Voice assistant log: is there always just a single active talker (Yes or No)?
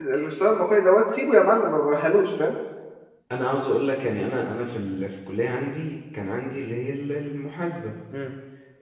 Yes